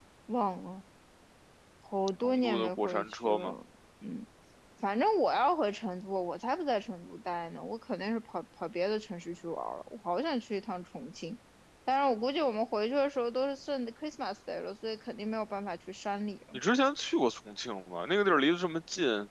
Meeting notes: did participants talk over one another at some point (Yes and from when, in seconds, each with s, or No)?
Yes, from 2.2 s